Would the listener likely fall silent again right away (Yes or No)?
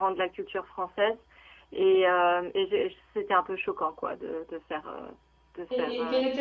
No